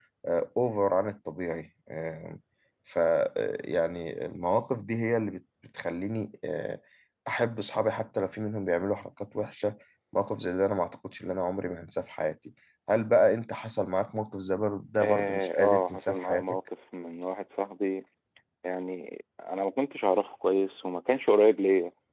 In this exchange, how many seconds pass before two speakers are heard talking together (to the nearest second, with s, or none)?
15 s